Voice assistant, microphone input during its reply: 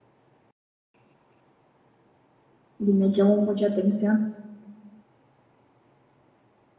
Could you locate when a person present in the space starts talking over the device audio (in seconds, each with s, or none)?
2.8 s